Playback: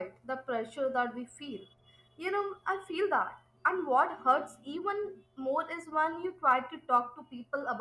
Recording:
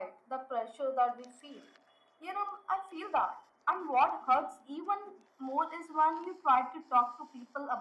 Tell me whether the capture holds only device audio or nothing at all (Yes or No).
Yes